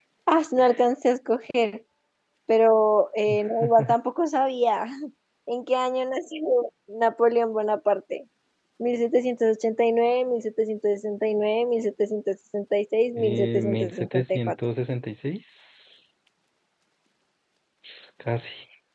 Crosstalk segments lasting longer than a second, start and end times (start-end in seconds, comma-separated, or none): 13.2-14.6